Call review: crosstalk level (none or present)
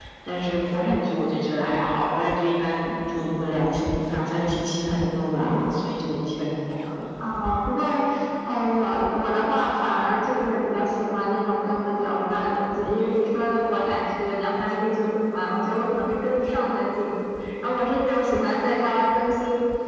none